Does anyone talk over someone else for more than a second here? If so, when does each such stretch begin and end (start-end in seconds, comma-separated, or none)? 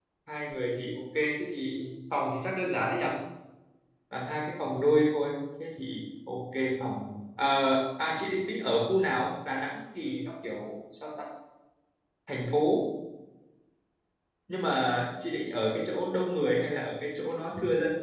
none